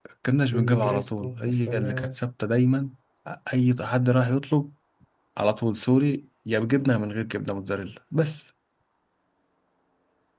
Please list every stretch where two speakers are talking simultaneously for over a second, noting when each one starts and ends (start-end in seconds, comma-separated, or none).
0.5-2.2